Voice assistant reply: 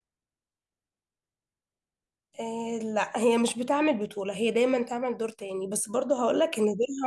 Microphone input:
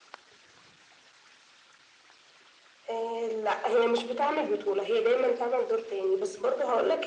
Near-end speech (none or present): none